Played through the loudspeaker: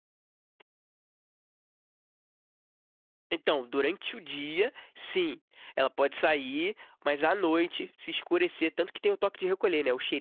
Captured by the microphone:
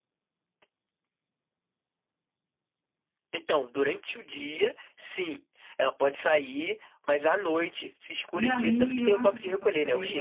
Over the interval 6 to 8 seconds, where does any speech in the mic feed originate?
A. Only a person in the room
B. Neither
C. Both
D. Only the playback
D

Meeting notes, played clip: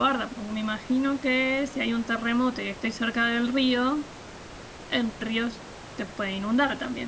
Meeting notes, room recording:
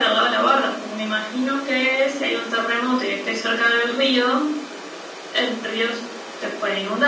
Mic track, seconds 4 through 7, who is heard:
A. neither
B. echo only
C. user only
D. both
B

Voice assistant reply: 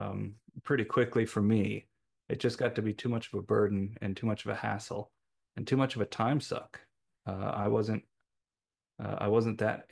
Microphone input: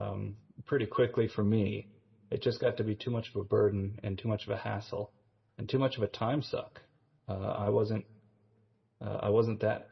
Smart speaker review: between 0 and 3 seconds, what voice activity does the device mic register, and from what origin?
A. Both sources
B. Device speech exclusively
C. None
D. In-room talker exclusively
B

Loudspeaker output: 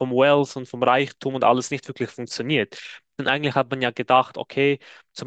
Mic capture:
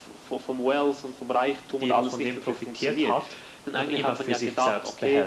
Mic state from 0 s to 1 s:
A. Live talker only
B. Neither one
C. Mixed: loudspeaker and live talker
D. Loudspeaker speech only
D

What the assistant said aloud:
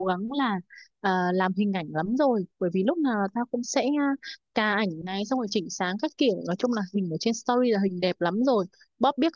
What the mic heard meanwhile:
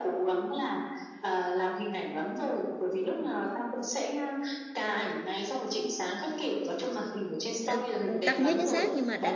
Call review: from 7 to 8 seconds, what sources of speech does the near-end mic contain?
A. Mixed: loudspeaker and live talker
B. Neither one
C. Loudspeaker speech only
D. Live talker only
A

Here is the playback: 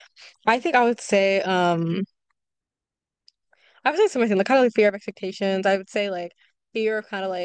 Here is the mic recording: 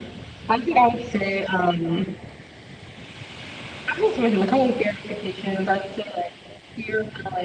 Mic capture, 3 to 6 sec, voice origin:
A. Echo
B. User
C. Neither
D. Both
A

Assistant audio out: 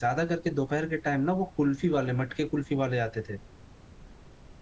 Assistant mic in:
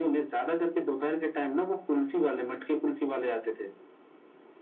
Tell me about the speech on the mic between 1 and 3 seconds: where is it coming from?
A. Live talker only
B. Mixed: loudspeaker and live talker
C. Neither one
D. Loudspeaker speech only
D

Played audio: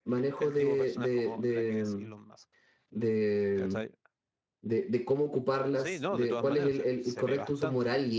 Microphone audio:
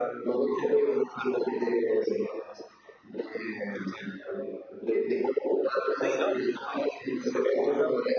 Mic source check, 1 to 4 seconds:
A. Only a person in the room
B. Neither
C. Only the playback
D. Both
C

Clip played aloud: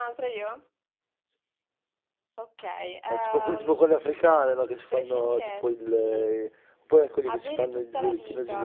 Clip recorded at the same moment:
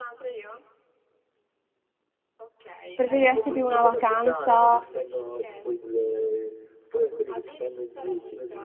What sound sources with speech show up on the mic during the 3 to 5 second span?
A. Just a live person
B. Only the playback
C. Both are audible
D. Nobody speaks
C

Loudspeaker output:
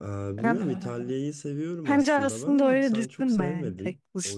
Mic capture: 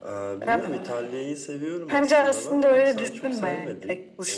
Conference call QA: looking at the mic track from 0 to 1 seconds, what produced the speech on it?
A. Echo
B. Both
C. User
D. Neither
A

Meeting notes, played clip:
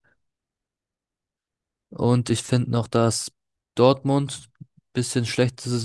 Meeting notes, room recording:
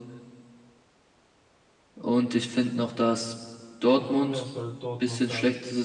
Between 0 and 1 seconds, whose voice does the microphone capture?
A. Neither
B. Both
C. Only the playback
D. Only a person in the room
A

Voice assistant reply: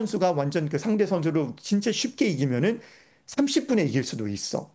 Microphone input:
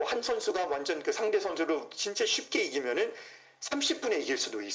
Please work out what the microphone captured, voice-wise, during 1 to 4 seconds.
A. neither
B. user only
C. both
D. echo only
D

